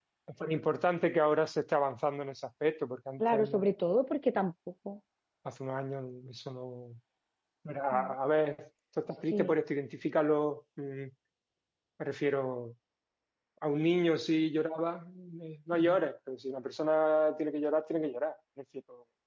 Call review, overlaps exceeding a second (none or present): none